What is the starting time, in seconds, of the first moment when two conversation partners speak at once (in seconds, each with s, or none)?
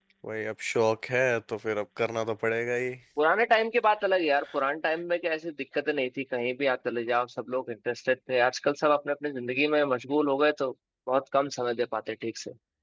none